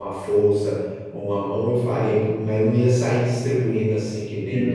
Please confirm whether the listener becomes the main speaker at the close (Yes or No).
Yes